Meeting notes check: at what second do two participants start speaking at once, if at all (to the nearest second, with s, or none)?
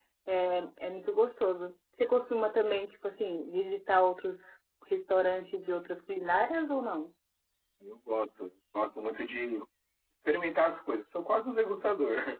none